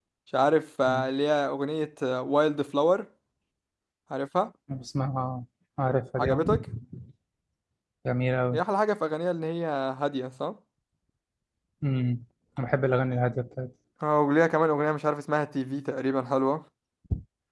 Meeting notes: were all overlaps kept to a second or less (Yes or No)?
Yes